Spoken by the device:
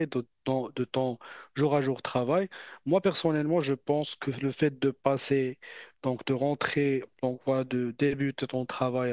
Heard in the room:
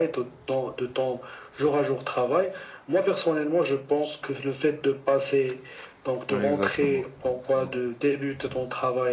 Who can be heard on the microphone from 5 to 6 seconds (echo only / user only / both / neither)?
echo only